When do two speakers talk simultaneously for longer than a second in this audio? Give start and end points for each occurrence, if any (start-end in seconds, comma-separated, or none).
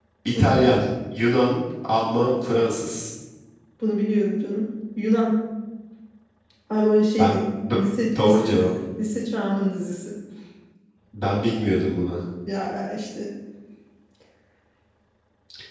none